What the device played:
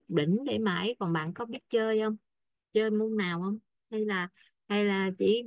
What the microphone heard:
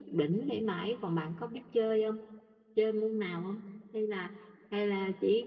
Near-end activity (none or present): none